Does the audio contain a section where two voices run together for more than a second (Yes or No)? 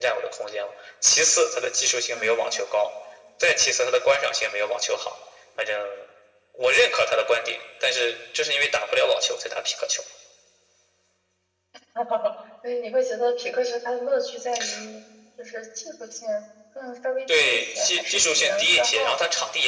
Yes